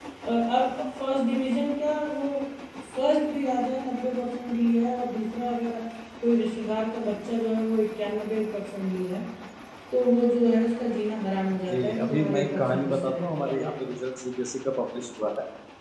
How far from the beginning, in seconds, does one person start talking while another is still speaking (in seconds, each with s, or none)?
11.7 s